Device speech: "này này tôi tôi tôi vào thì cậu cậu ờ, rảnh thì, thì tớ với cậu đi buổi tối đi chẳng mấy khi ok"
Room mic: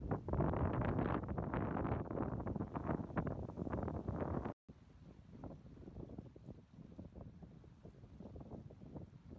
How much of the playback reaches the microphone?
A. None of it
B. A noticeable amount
A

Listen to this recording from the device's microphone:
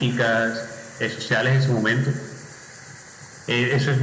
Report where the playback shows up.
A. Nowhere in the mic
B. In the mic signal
B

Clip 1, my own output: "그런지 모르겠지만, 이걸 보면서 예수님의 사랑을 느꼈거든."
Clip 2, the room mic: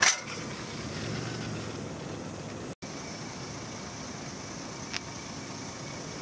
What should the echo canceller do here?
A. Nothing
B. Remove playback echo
A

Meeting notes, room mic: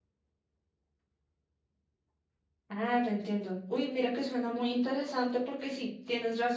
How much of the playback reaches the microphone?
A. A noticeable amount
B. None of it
B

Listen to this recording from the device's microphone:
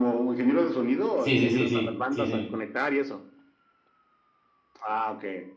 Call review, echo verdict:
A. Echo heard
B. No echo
A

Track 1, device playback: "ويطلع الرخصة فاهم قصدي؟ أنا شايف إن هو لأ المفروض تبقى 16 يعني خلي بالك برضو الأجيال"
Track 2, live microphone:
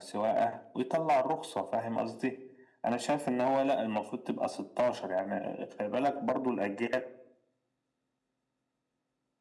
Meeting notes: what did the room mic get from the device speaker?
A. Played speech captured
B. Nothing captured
A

